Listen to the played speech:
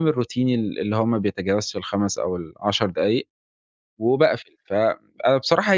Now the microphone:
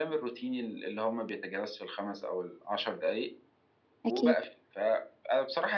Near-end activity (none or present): present